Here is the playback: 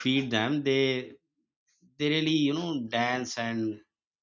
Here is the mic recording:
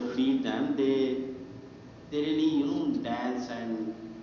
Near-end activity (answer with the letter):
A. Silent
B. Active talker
A